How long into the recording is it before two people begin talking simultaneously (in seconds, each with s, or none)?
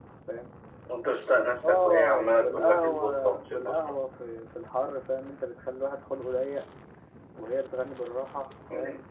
1.6 s